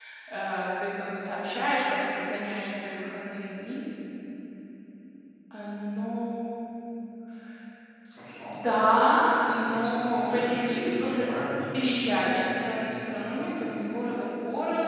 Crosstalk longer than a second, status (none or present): present